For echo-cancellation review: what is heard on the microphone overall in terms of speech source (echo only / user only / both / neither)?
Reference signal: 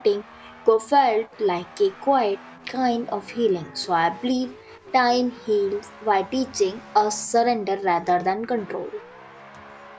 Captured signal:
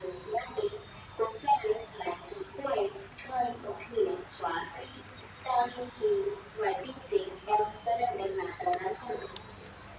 echo only